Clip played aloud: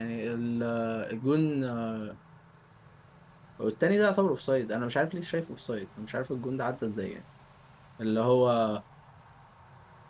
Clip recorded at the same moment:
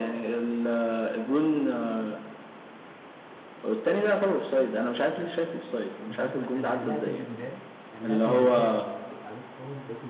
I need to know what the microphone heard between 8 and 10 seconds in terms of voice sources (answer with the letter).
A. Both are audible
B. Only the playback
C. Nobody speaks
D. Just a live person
A